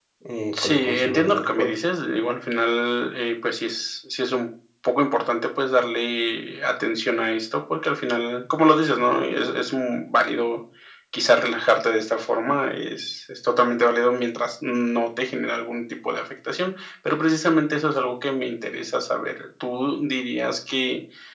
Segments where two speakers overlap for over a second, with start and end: 0.5-1.8

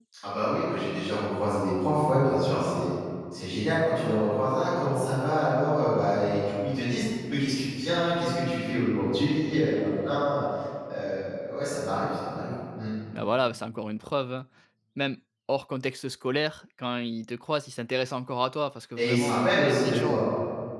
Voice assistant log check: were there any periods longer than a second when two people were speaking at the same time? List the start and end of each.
19.0-20.2

